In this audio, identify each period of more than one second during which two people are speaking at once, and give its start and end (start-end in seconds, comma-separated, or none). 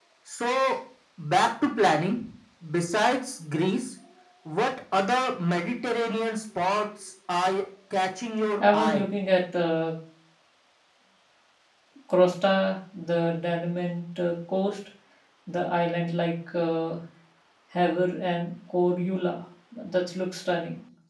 none